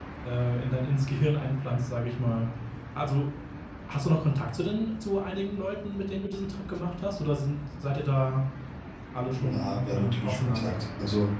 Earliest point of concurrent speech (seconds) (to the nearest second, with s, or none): 9 s